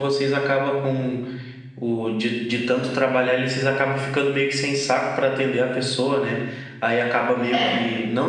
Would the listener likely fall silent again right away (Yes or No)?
Yes